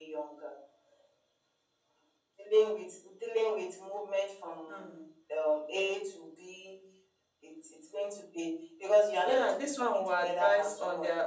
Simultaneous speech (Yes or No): Yes